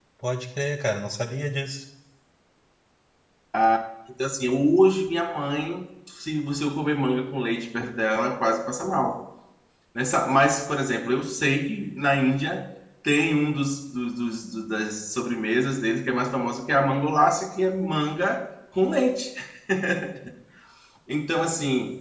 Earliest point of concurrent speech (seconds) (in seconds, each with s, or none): none